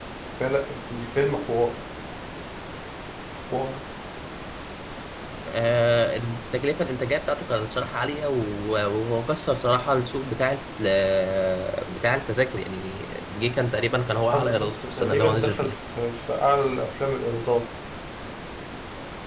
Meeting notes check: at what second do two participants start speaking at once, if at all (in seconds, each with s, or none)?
14.3 s